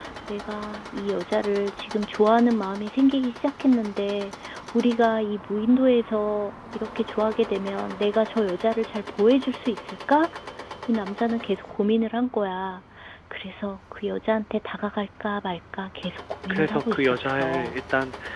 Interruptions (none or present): present